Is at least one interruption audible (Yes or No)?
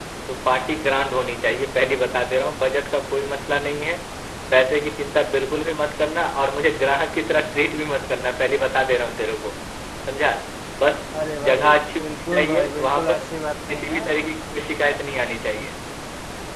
Yes